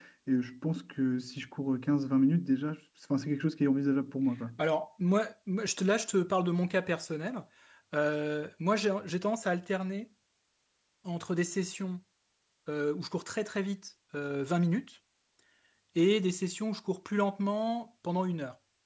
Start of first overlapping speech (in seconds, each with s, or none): none